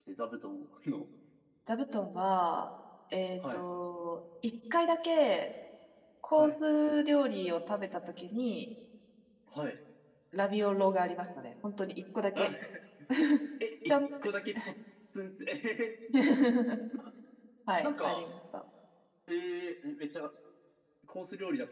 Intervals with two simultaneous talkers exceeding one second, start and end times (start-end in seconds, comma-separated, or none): none